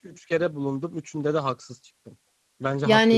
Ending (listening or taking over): taking over